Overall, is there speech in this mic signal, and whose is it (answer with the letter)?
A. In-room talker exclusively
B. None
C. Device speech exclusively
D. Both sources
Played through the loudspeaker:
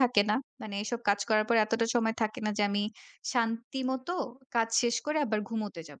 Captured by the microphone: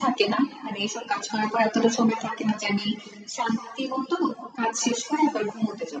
C